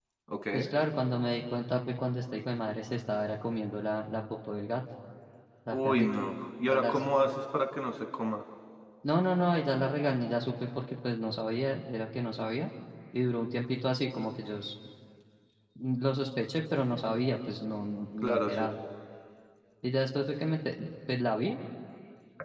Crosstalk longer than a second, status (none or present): none